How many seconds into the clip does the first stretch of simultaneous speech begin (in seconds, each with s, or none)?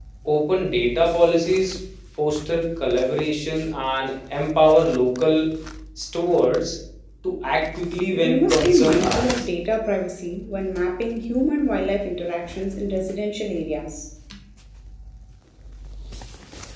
8.2 s